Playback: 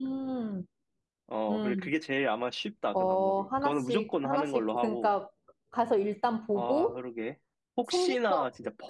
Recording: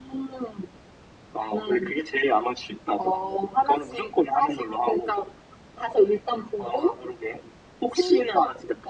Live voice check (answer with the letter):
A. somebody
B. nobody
B